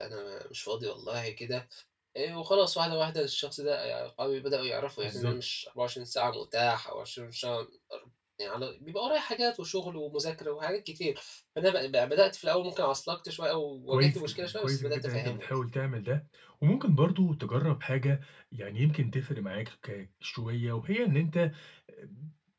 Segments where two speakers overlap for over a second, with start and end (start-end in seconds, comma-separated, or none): 13.9-15.6